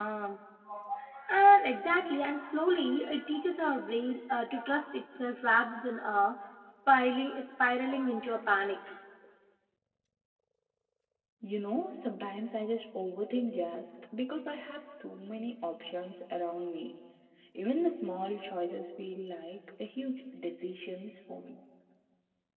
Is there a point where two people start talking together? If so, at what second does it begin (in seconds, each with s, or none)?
none